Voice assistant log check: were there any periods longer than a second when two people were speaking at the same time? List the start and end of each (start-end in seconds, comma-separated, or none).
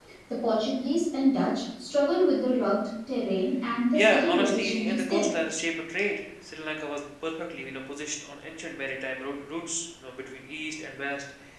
3.9-5.3